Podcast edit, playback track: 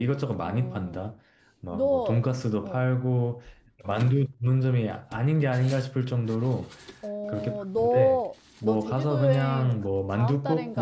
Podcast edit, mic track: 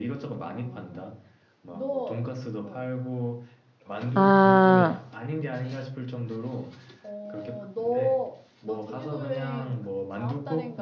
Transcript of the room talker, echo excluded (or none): 아,